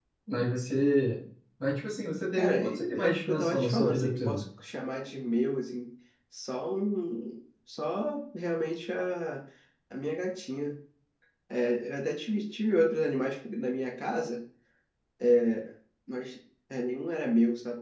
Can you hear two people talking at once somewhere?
Yes, from 2.4 s

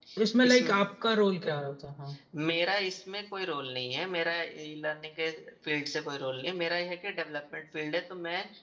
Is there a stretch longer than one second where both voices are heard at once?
No

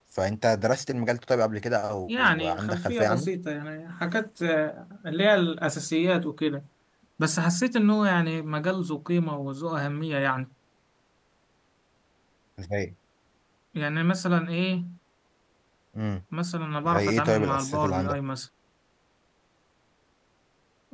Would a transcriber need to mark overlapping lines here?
Yes, from 2.1 s

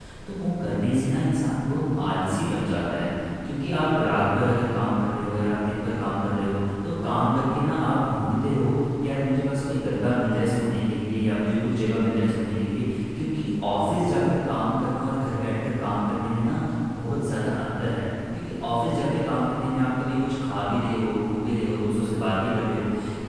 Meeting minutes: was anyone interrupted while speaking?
No

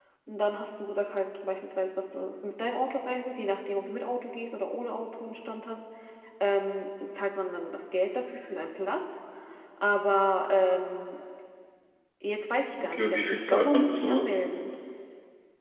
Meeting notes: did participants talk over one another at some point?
Yes, from 12.7 s

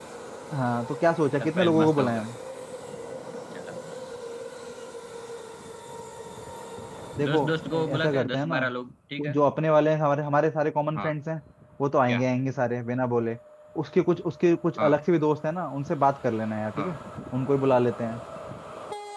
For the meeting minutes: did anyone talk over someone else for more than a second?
Yes, from 1.0 s

